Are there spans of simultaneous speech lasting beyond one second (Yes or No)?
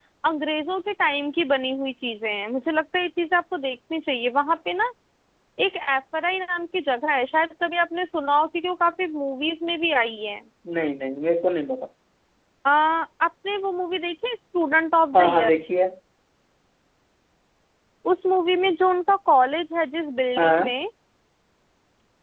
No